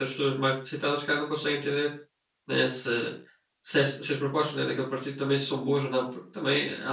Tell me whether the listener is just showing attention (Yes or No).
Yes